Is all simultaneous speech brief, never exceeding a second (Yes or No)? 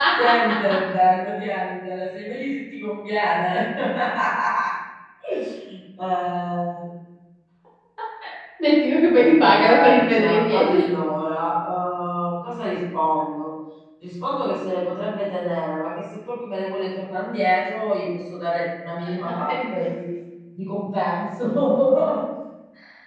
No